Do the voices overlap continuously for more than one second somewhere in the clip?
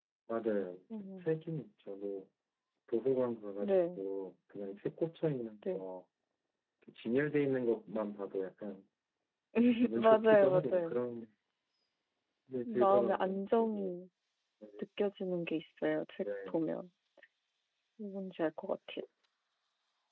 Yes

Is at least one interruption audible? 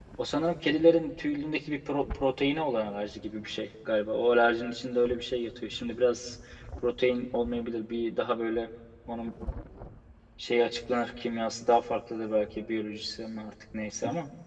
No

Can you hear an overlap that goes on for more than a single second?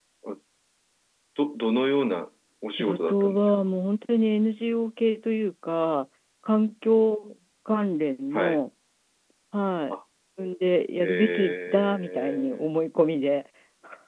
Yes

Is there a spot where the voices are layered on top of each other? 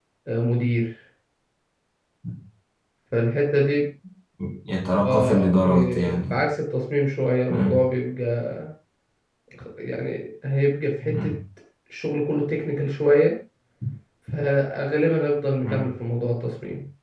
Yes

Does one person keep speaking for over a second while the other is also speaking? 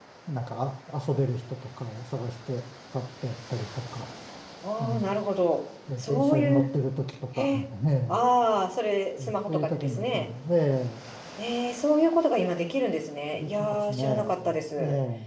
Yes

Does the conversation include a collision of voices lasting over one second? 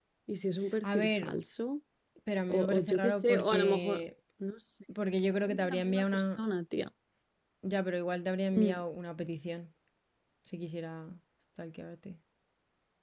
Yes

